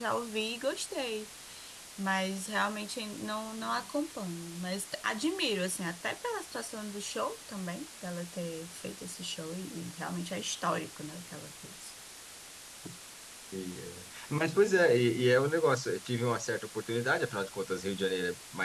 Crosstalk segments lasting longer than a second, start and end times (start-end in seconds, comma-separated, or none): none